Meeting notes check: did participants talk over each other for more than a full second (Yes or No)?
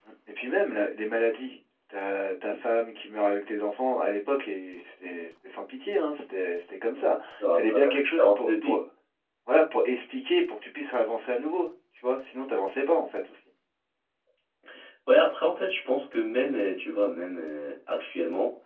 Yes